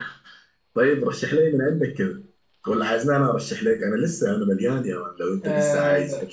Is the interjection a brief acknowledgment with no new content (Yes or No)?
No